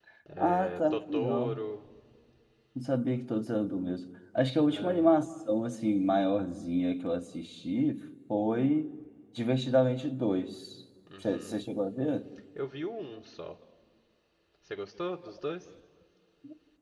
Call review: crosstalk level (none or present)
present